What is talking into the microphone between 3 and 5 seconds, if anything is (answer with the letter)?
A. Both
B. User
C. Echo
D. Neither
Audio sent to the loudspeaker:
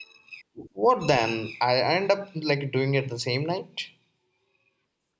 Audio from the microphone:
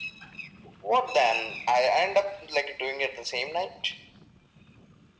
C